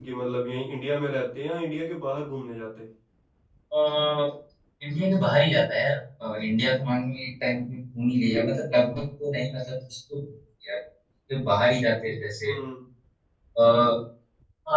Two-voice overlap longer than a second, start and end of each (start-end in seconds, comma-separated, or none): none